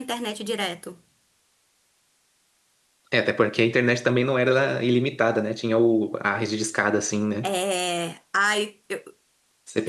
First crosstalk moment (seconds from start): none

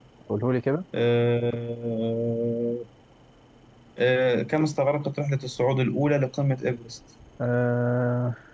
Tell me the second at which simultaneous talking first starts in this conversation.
none

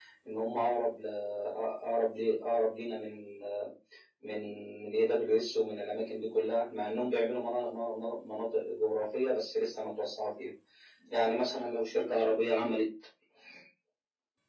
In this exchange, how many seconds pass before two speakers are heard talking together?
none

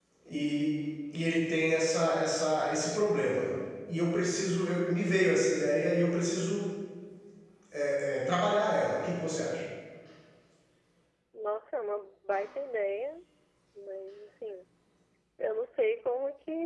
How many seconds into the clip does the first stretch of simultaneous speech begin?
none

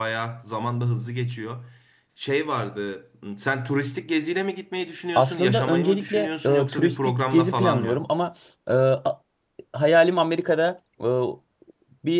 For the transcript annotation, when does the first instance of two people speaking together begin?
5.2 s

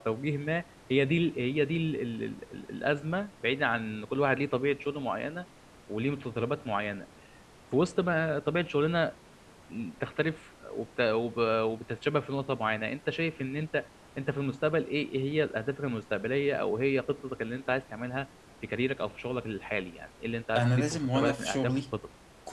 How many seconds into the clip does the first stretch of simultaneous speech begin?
20.6 s

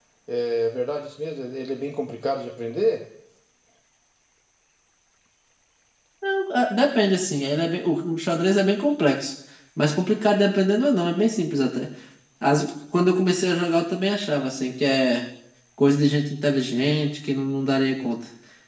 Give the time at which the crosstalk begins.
none

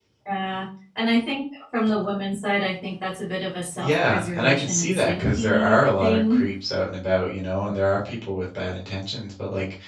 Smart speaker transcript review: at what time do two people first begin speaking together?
3.8 s

